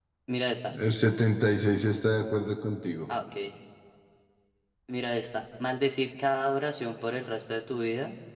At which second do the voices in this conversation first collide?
none

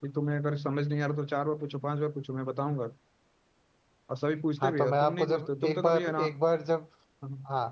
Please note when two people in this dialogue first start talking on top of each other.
4.6 s

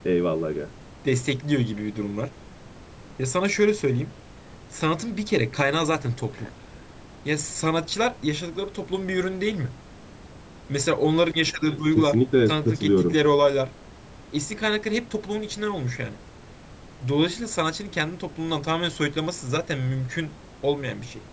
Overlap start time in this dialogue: 12.0 s

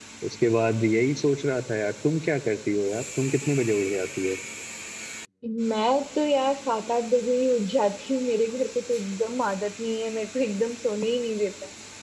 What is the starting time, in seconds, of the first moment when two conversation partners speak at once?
none

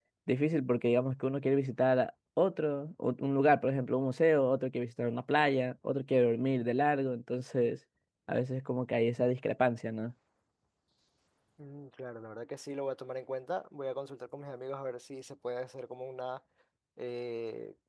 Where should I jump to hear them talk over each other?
none

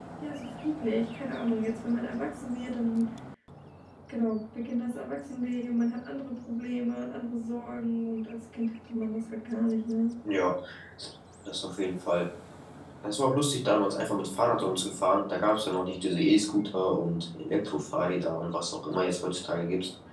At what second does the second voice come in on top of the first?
none

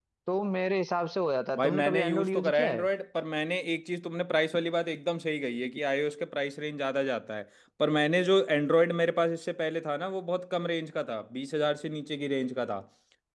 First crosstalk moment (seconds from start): 1.5 s

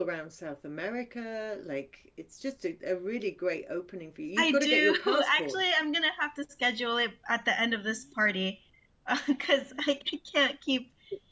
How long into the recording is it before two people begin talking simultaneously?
4.4 s

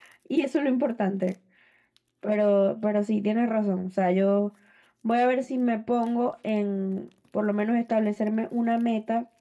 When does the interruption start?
none

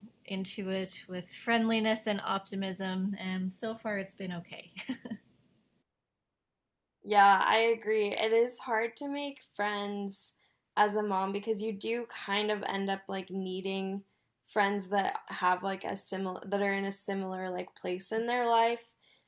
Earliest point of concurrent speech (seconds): none

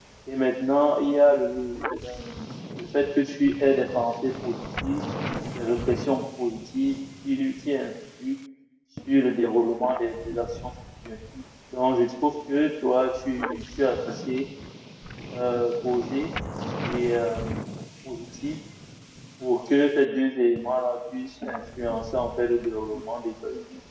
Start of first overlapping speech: none

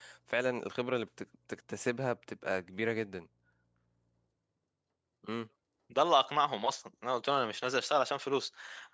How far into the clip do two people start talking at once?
none

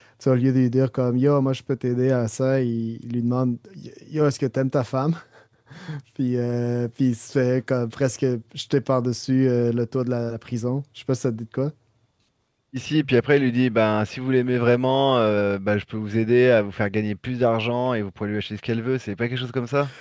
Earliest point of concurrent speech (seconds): none

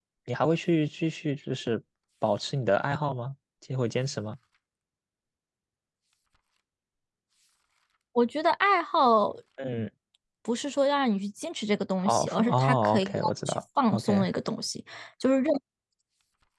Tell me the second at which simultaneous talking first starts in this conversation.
12.0 s

